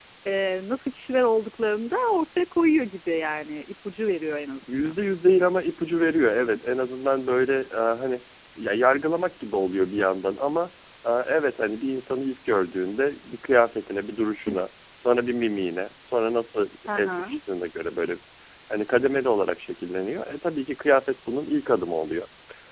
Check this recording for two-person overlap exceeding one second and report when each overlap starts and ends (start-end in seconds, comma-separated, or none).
none